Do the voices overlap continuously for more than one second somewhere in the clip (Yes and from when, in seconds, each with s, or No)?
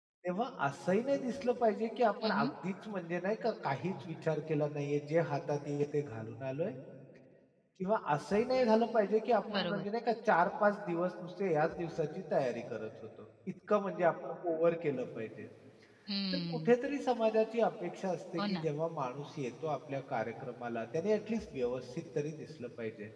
No